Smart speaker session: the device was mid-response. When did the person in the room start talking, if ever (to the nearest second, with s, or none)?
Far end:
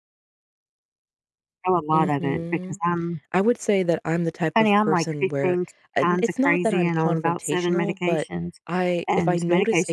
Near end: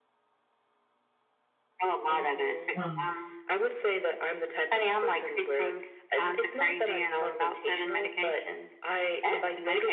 3 s